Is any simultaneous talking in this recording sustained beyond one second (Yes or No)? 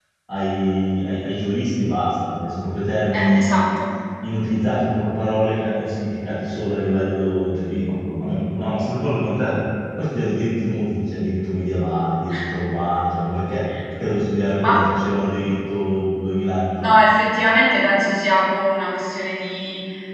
No